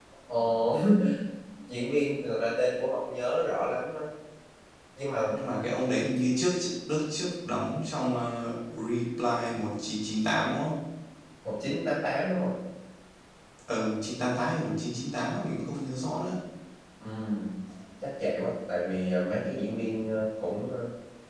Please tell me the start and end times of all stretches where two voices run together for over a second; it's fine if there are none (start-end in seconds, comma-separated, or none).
none